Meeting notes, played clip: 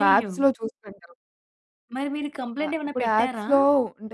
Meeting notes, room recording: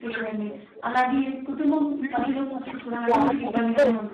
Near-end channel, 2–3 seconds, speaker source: both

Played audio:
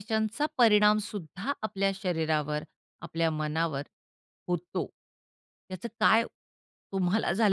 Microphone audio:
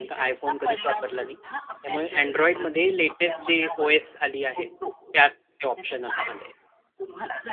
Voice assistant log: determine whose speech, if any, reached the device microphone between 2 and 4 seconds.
both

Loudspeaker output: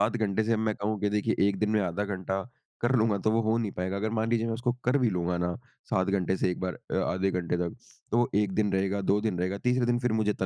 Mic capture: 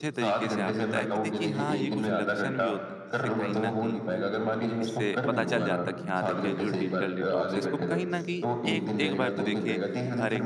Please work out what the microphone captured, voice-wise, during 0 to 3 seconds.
both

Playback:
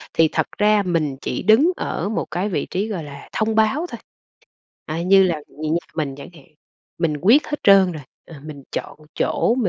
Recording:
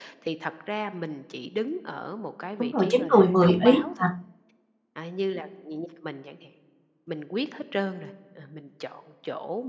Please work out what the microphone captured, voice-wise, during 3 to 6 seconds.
both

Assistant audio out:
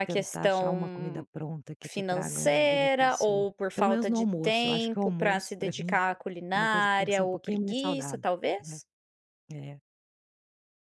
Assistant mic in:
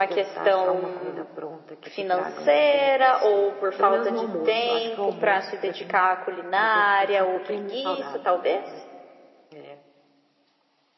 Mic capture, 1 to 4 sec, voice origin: echo only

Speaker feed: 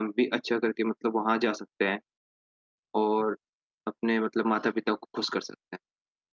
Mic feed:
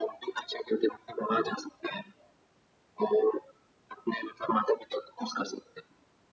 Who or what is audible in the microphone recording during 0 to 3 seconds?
echo only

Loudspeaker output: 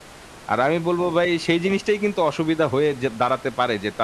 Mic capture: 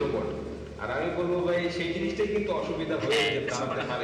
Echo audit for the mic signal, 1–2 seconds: echo only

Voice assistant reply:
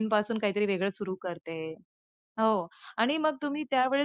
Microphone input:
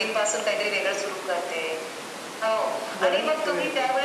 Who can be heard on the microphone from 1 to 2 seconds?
echo only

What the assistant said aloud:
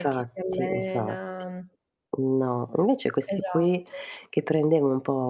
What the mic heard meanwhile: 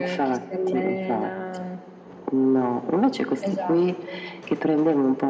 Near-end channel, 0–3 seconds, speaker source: echo only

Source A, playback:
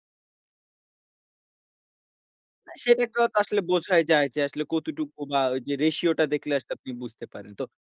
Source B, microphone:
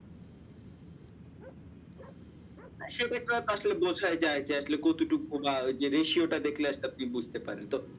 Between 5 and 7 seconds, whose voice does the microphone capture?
echo only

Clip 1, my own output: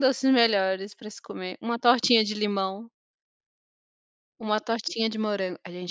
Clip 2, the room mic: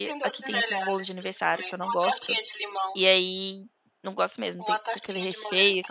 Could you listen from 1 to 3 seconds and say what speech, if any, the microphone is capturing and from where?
both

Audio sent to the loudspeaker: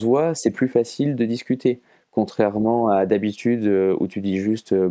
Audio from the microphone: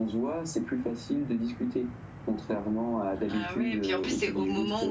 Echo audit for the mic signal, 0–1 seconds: echo only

